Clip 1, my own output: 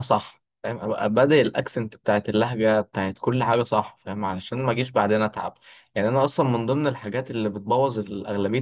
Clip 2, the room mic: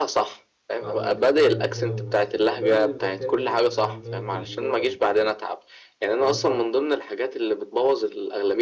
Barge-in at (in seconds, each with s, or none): 0.8 s